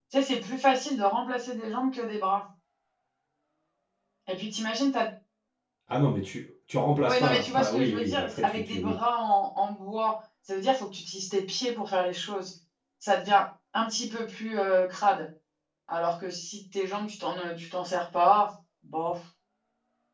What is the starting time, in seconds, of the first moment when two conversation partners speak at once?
7.0 s

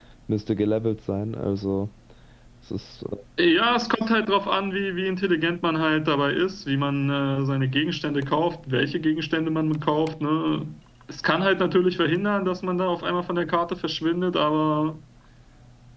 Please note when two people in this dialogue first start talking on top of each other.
none

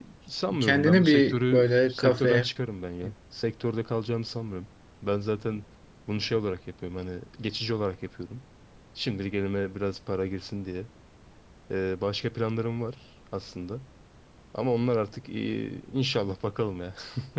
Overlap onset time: 0.6 s

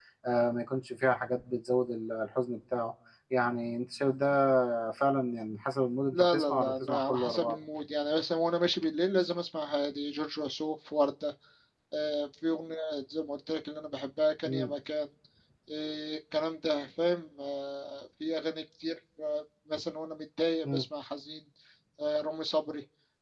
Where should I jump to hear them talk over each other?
6.1 s

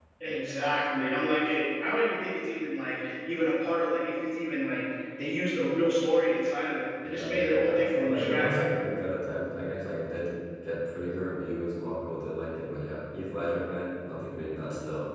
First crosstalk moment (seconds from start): 7.0 s

